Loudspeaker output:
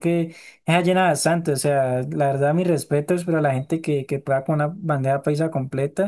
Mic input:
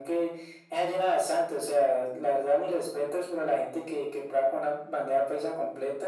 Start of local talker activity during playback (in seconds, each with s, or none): none